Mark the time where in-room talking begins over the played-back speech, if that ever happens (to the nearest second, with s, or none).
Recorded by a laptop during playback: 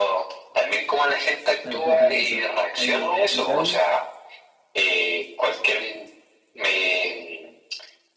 2 s